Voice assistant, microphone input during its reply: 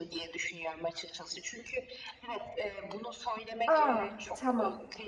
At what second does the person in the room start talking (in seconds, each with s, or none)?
3.7 s